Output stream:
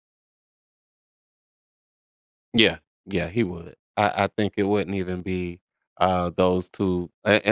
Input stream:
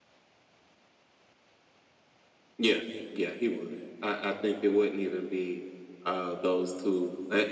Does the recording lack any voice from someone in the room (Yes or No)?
Yes